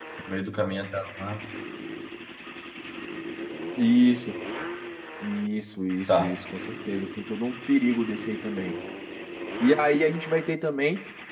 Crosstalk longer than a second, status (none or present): none